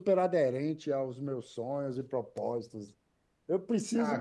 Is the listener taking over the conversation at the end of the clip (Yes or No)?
Yes